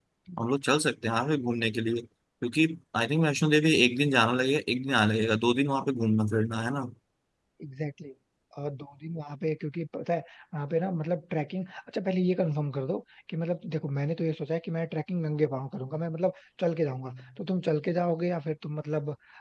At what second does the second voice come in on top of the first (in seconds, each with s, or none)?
none